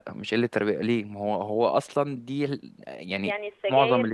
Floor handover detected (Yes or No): Yes